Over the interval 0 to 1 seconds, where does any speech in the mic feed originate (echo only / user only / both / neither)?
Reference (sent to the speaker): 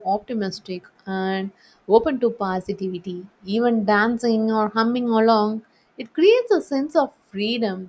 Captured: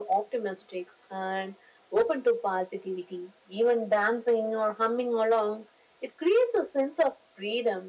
echo only